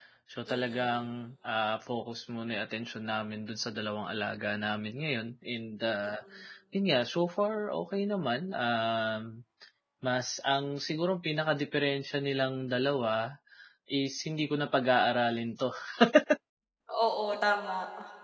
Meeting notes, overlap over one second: none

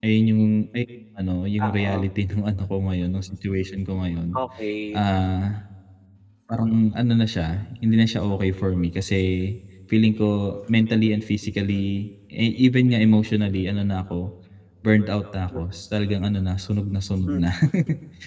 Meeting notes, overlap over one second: none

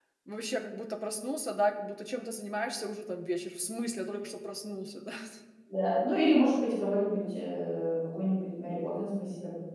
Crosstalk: none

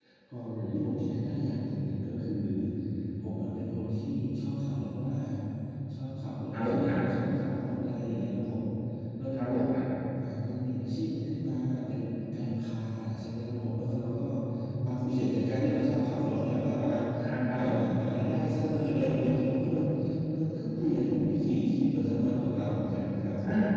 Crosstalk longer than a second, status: none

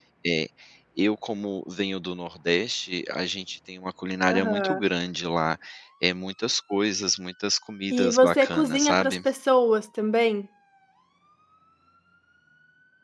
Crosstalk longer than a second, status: present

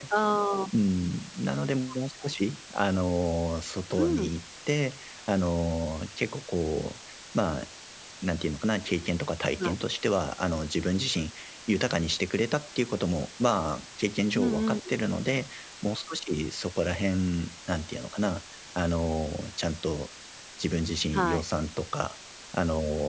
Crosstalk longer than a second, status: none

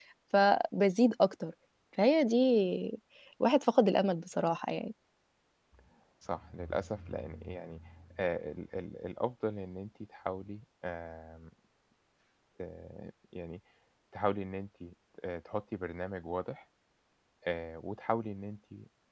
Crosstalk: none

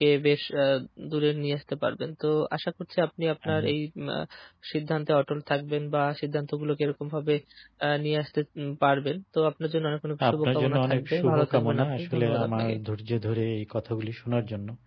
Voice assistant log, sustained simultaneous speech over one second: present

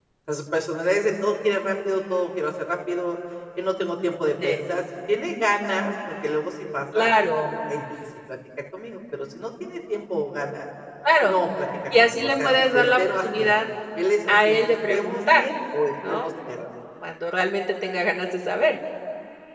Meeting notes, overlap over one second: present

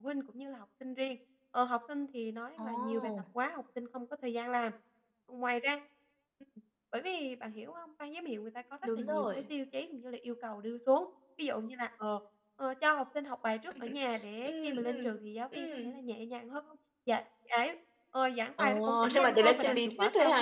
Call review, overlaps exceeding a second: present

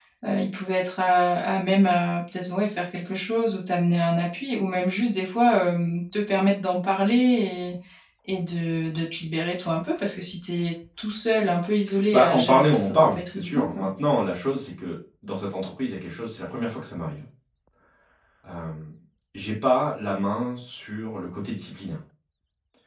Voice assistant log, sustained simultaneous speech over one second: present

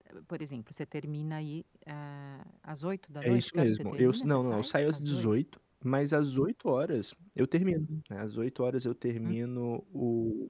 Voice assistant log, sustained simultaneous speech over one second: present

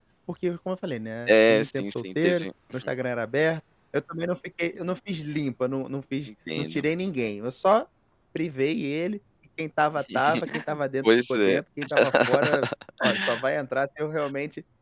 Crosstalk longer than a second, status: present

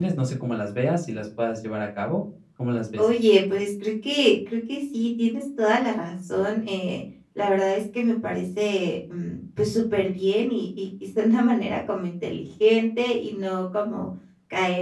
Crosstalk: none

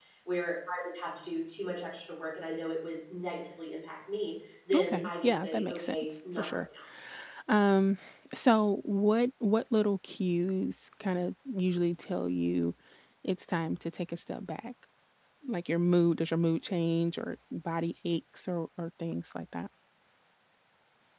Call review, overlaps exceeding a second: present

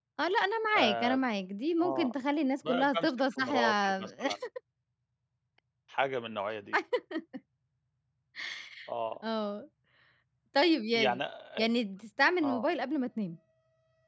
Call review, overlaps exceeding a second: present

